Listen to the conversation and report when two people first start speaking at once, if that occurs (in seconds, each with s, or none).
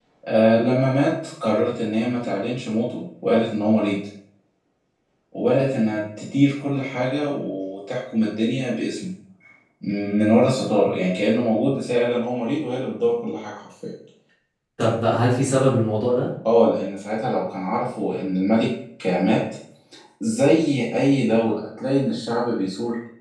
none